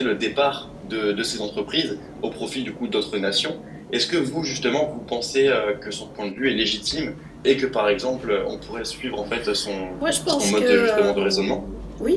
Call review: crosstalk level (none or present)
present